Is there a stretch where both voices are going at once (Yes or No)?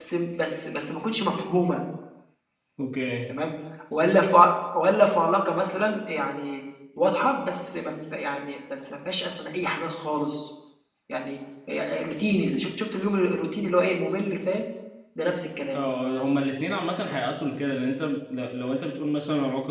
No